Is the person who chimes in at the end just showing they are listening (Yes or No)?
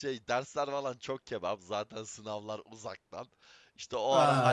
Yes